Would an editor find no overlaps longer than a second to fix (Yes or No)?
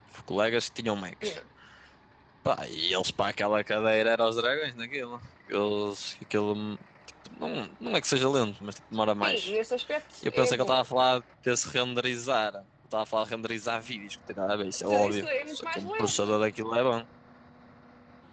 No